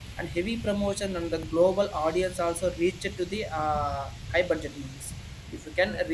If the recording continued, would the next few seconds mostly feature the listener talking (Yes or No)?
No